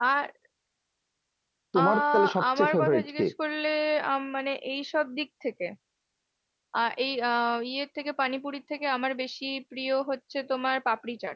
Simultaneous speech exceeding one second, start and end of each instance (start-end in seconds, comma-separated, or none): 1.8-3.2